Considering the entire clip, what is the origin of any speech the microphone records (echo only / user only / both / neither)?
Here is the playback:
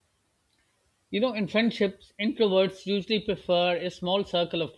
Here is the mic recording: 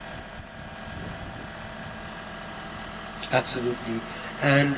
user only